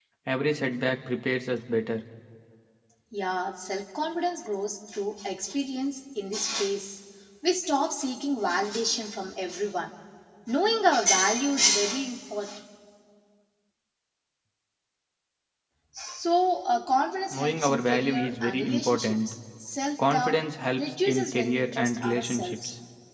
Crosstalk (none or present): present